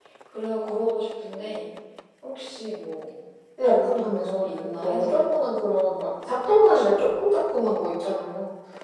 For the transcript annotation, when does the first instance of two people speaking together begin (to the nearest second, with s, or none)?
4 s